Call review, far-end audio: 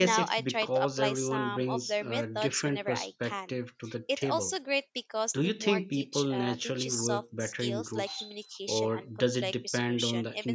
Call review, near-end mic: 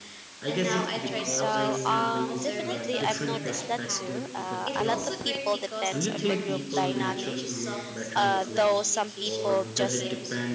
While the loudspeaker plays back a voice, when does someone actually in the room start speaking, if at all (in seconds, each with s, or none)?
0.7 s